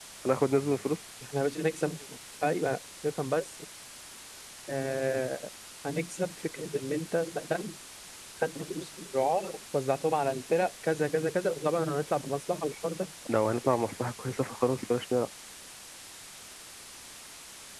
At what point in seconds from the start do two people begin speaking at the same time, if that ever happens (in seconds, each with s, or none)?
none